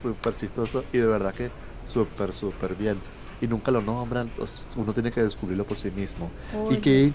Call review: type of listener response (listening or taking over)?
listening